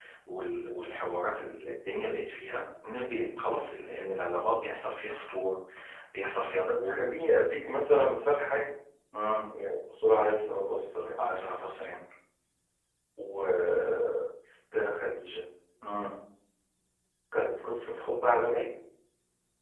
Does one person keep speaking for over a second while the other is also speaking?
No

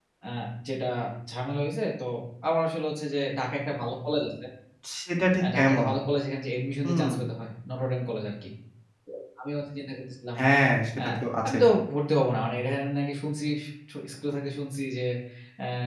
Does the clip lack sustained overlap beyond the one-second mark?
Yes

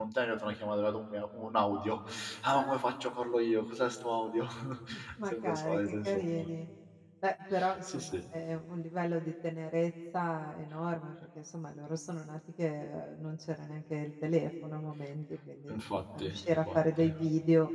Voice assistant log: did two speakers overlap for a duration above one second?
Yes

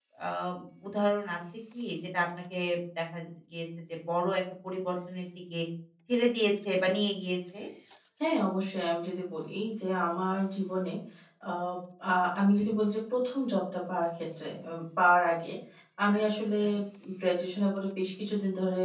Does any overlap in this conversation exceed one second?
No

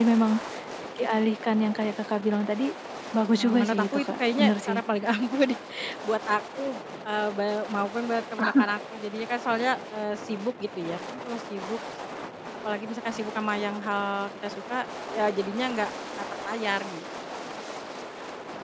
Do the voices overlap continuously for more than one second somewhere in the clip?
Yes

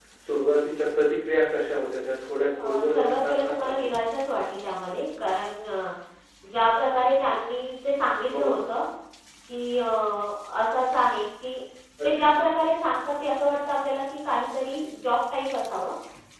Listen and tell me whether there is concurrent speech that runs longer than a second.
Yes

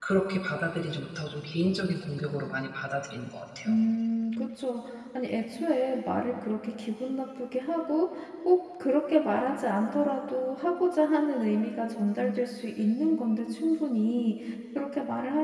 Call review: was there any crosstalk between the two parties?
No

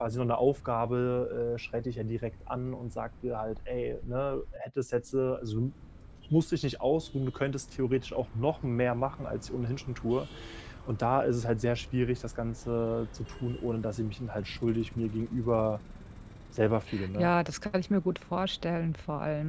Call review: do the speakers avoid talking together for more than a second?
Yes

